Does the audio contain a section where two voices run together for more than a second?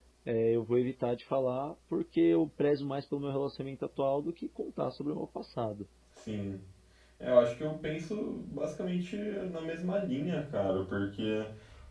No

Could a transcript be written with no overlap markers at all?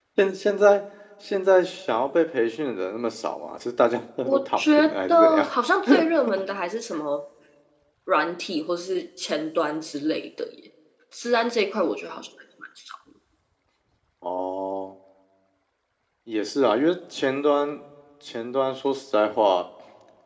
No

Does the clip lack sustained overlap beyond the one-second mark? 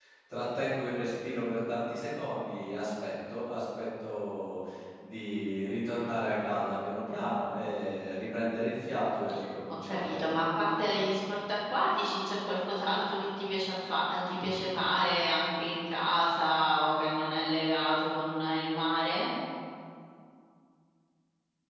Yes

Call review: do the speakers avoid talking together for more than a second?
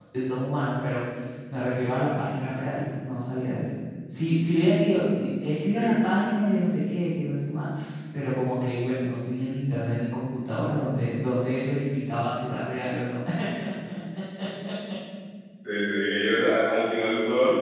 Yes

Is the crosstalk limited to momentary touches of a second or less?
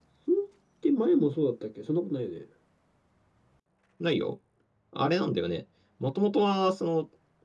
Yes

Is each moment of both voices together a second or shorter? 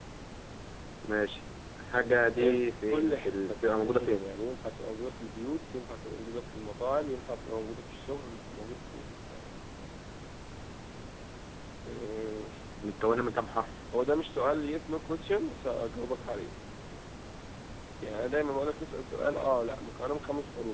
No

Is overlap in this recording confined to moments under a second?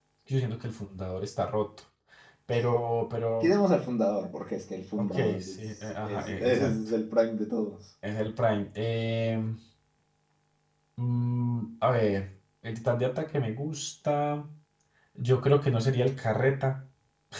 No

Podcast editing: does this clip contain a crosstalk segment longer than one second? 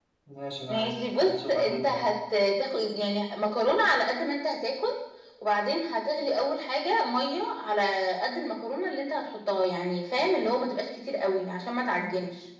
Yes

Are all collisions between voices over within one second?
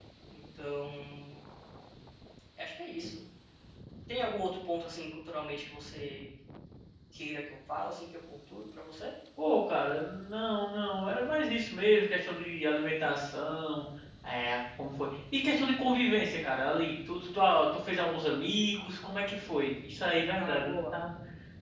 Yes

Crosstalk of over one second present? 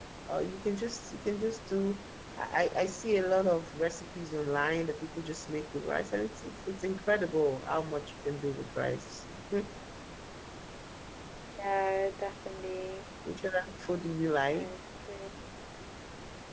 No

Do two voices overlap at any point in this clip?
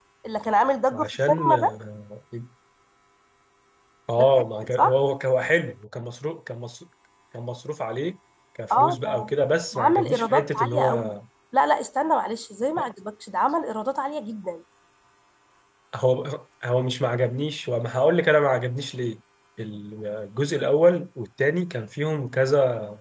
Yes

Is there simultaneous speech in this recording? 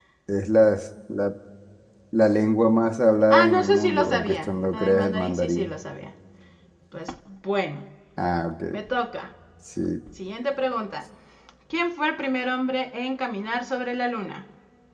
Yes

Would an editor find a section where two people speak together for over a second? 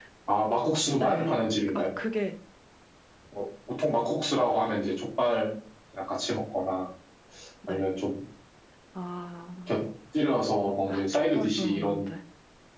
Yes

